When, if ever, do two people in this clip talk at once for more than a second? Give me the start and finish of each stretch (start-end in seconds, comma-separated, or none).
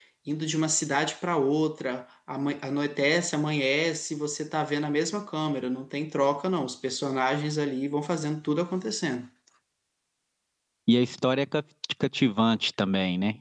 none